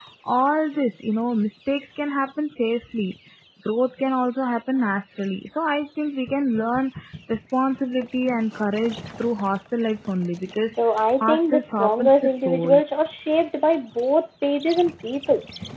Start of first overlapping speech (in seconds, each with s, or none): 11.2 s